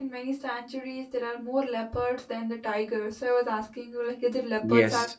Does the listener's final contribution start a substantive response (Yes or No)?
Yes